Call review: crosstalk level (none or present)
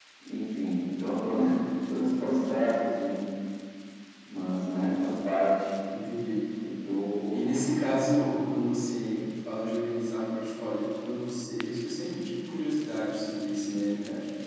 none